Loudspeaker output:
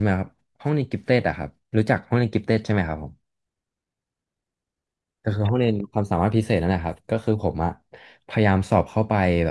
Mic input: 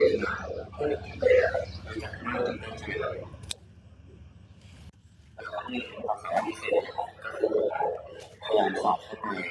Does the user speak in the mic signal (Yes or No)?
No